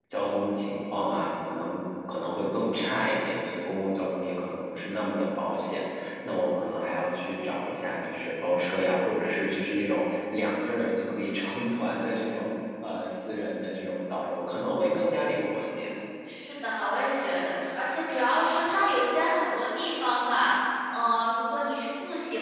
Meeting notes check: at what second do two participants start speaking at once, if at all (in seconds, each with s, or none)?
none